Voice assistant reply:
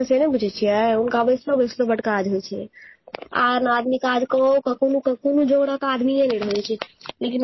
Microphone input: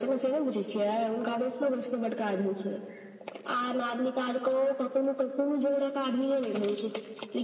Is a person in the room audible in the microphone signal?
No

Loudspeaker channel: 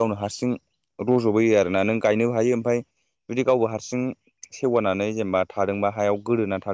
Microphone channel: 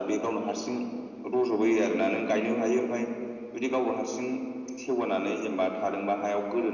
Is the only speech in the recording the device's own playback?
Yes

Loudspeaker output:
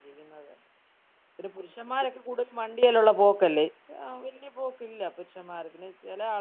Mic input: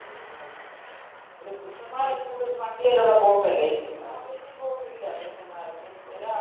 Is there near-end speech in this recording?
No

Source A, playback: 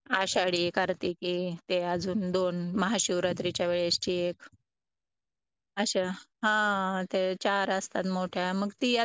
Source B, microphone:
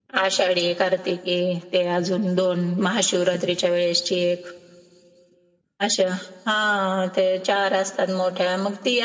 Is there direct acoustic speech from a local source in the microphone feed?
No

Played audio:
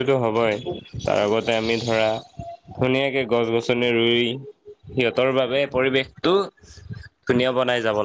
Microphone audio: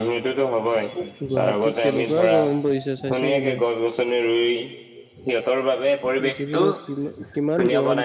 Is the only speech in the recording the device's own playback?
No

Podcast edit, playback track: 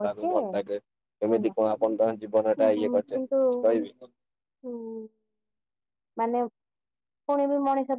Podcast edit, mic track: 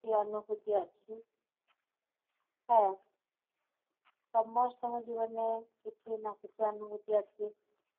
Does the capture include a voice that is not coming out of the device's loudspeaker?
Yes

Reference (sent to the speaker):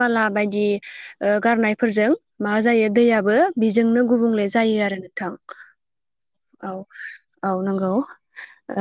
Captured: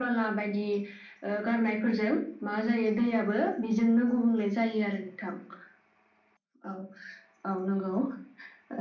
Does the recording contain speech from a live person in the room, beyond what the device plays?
No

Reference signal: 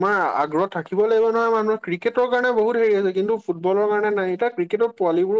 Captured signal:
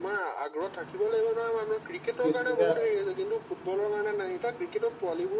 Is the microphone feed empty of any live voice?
No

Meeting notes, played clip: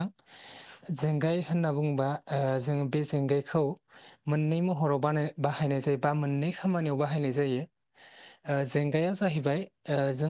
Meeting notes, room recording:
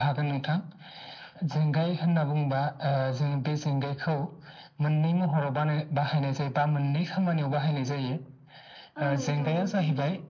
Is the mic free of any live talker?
No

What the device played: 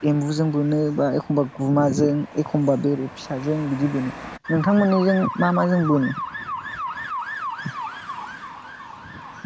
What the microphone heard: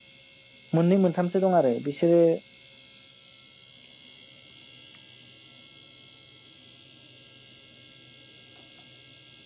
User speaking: Yes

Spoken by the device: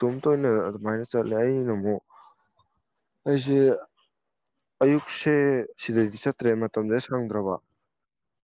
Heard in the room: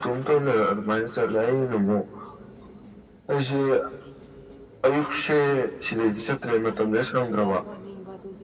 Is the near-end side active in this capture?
Yes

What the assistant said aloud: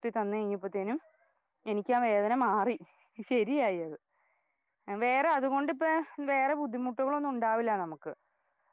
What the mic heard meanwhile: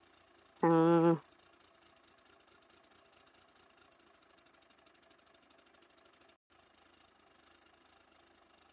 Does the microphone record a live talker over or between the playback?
Yes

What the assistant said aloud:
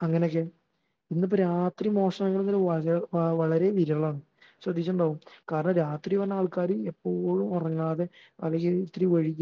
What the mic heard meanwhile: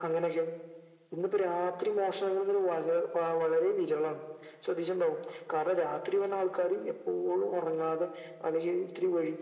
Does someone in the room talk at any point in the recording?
No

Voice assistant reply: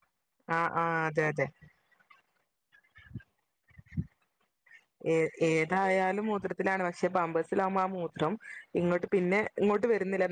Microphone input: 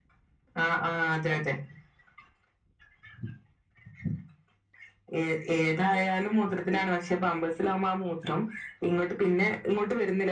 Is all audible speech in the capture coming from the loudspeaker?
Yes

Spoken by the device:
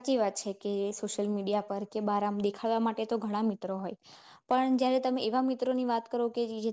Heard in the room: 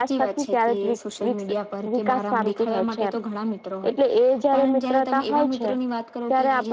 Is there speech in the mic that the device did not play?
Yes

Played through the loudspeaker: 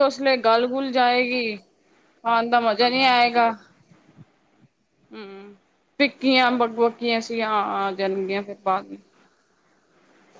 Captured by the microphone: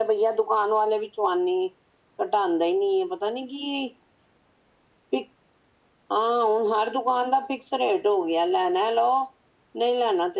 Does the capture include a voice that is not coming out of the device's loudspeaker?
Yes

